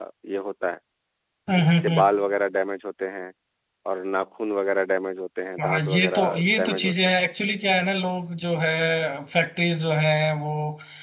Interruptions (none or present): present